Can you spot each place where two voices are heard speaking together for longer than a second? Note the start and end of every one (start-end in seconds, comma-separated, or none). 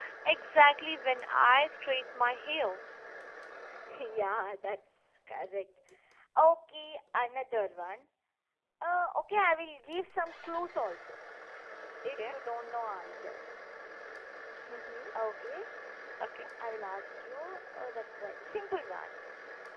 none